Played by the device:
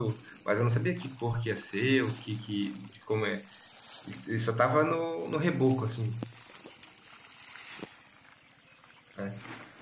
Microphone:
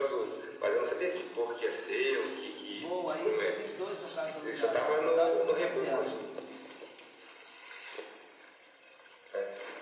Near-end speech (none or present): present